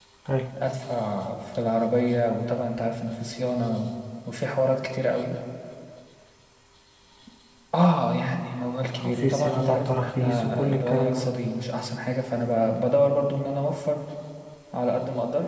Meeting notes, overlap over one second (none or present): present